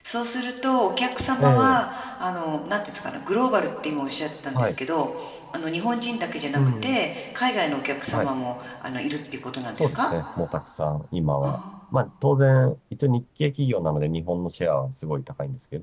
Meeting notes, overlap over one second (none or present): none